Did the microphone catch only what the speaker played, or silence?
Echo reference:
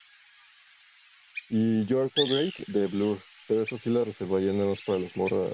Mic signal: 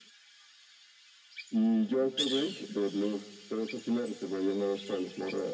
Yes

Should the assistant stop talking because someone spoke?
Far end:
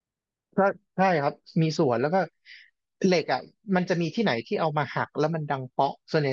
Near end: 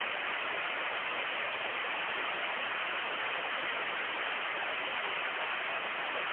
No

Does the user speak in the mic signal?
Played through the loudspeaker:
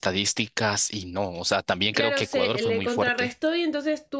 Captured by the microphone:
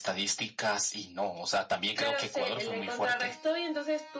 No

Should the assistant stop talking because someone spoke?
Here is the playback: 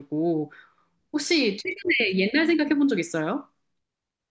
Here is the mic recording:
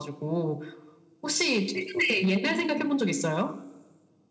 No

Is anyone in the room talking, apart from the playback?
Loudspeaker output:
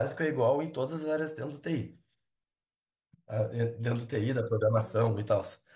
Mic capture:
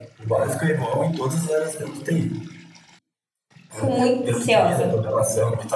Yes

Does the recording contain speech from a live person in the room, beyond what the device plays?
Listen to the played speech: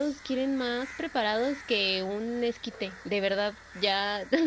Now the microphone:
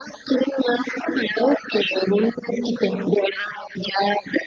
No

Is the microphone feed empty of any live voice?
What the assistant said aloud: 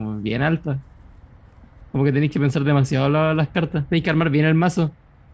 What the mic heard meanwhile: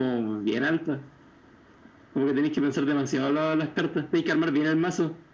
Yes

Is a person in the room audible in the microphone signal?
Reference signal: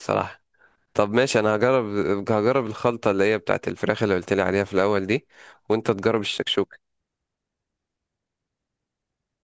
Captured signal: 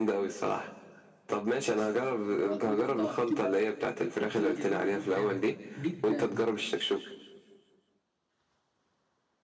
Yes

